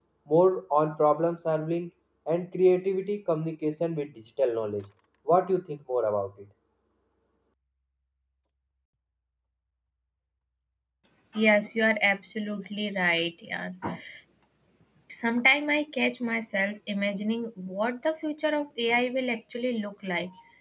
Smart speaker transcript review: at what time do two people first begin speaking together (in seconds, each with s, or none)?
none